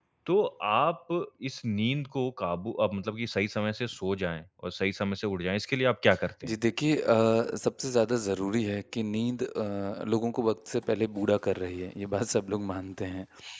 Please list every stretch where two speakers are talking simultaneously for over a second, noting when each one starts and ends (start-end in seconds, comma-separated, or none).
none